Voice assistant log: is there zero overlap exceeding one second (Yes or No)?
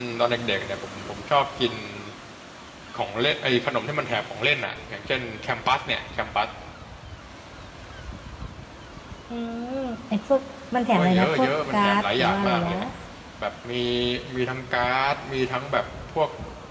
No